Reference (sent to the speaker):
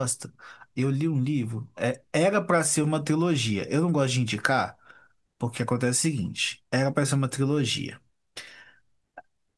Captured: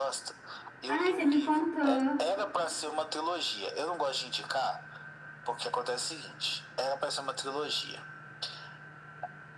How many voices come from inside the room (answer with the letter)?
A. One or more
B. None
A